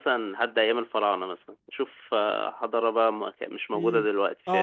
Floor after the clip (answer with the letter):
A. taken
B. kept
A